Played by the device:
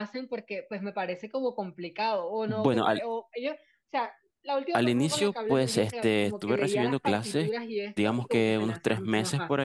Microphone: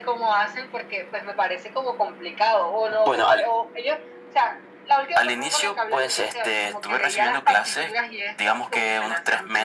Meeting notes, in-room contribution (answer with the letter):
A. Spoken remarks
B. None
B